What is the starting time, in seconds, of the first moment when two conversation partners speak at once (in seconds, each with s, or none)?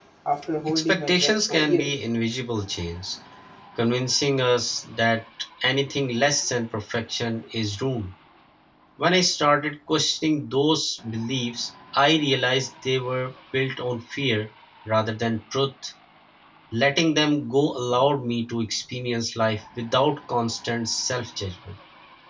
0.7 s